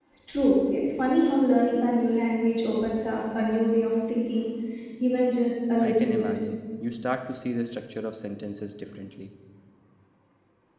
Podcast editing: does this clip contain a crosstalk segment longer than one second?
No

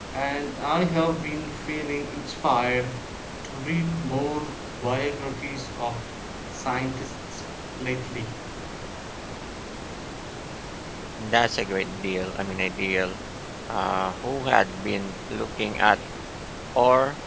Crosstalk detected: No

